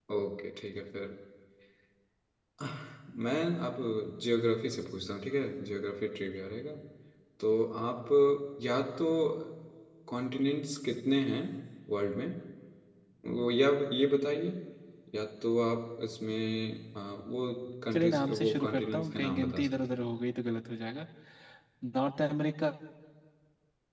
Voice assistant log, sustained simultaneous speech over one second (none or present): present